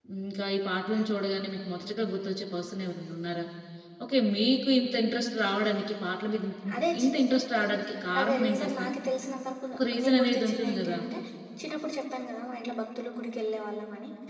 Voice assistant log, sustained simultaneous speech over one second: present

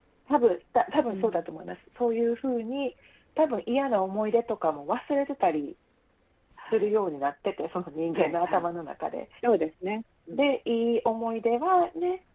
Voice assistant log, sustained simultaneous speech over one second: none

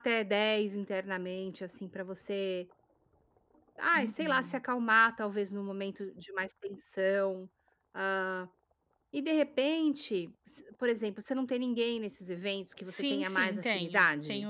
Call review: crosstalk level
present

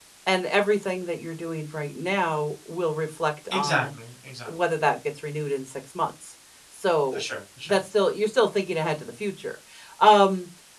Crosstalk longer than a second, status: none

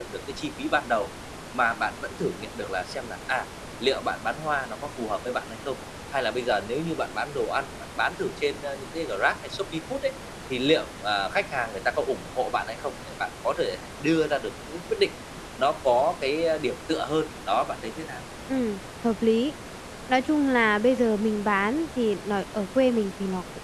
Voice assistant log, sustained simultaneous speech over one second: none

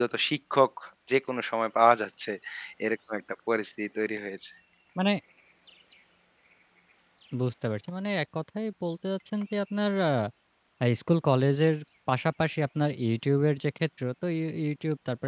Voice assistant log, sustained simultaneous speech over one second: none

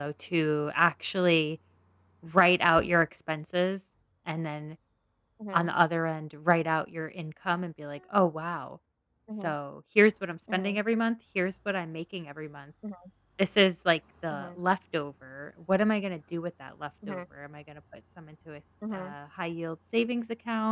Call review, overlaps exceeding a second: none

